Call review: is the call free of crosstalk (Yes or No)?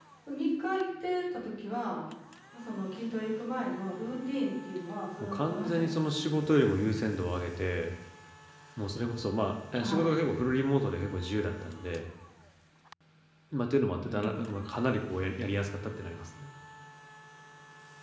No